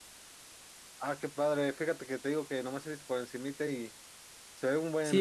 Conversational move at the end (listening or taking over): taking over